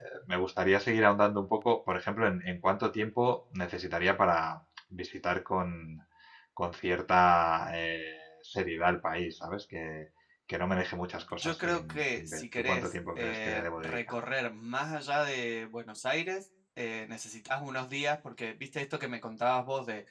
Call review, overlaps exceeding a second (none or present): present